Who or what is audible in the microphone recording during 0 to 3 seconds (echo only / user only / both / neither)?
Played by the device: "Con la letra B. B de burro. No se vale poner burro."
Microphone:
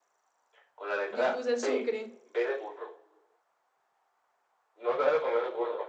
both